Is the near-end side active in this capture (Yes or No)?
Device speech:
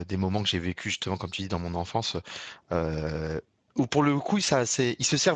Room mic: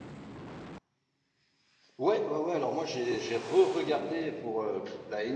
Yes